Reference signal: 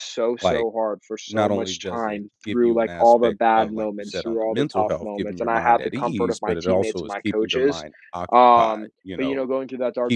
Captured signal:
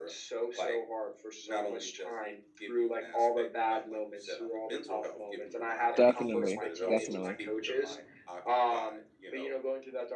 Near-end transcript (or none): definitely, definitely.